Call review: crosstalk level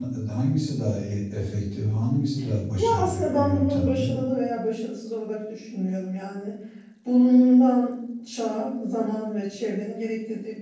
present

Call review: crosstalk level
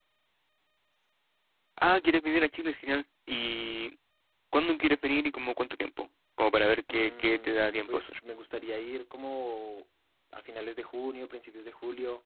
present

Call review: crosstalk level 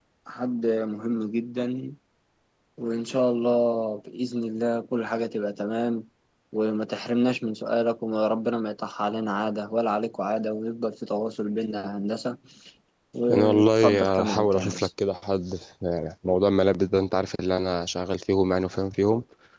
present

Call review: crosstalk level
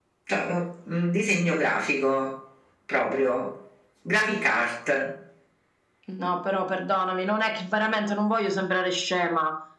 none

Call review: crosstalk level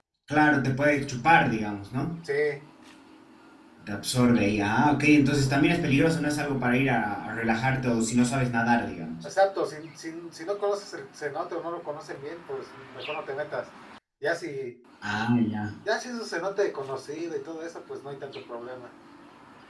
none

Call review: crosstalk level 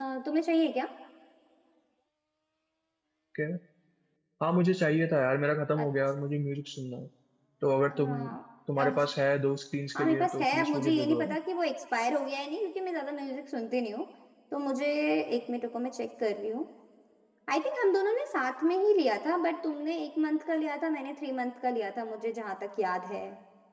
present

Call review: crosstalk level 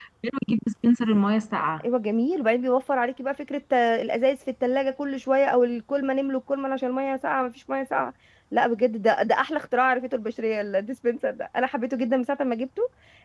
none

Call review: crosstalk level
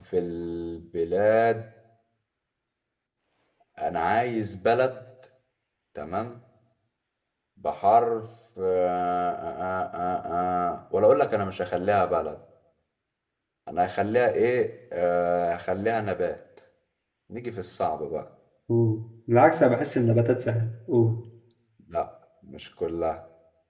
none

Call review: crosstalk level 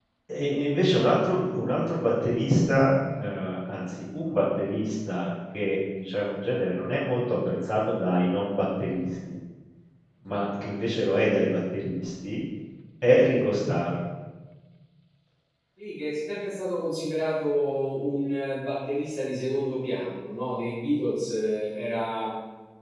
none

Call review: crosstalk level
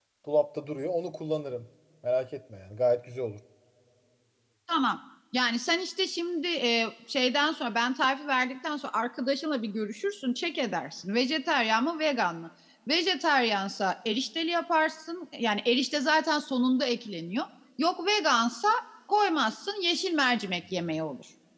none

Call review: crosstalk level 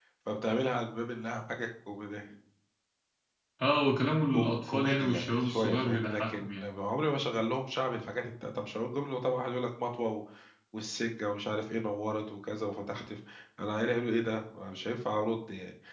present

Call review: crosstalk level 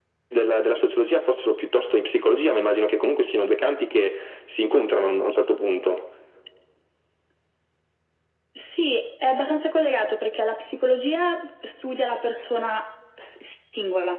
none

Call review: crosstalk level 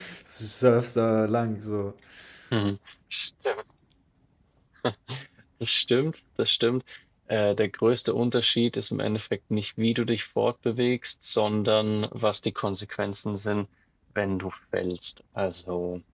none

